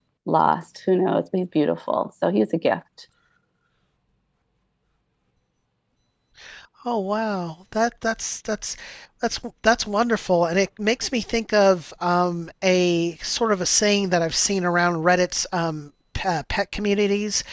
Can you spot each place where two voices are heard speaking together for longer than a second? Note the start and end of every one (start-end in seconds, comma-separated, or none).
none